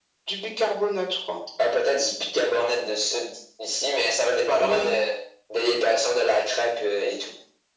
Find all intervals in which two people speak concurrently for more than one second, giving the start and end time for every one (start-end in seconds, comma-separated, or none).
none